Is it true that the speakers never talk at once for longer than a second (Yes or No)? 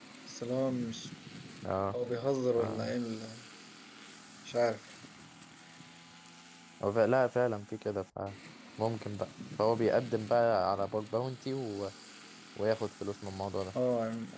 Yes